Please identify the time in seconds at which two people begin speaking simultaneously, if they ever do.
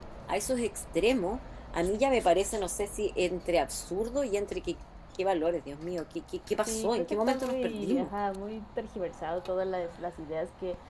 7 s

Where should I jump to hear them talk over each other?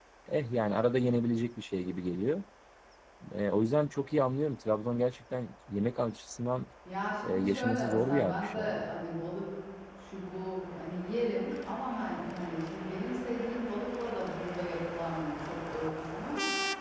7 s

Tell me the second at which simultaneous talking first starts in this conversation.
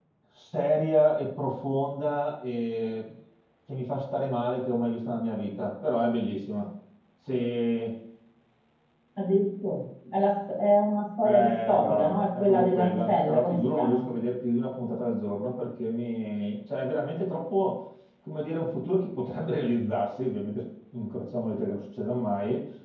11 s

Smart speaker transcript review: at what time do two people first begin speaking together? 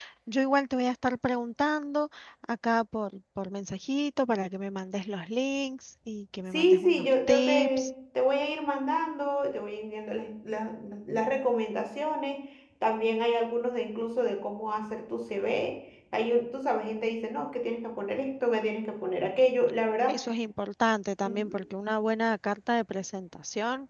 7 s

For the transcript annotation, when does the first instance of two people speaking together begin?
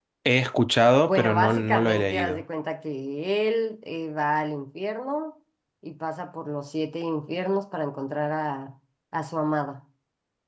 1 s

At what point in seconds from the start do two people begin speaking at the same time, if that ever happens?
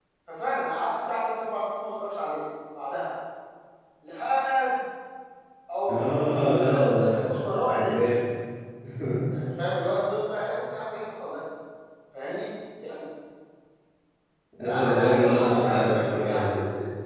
6 s

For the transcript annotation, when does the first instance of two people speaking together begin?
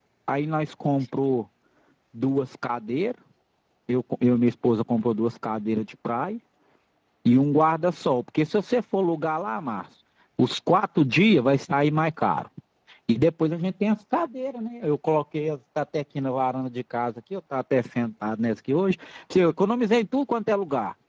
none

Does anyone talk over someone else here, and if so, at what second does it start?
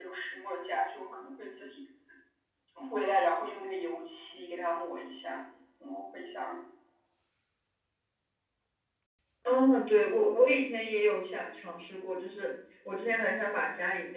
none

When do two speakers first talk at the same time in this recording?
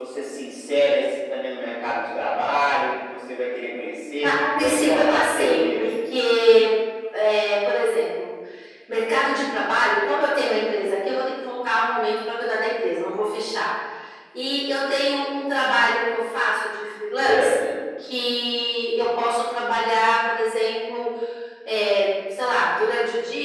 4 s

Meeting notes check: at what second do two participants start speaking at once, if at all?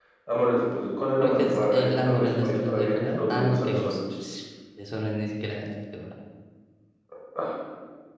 1 s

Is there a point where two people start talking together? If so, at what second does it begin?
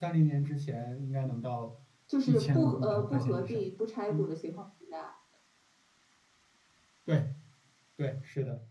2 s

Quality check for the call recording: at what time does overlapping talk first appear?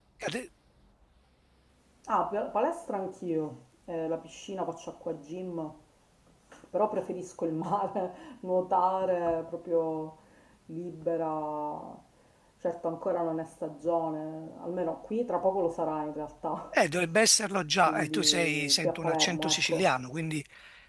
18 s

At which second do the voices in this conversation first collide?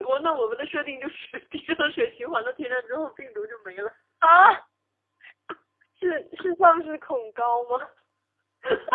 none

